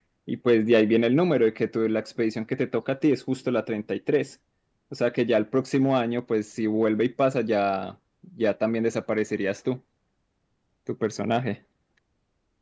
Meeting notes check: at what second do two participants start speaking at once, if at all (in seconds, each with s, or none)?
none